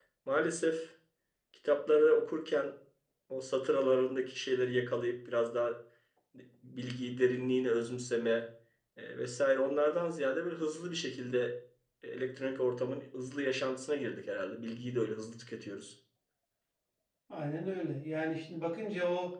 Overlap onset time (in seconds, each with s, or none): none